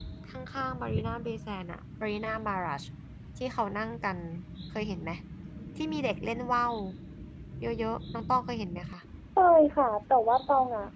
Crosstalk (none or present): none